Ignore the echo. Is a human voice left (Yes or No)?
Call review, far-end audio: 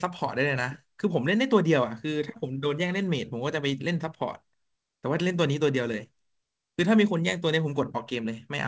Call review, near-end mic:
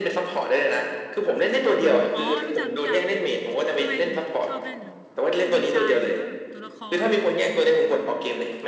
Yes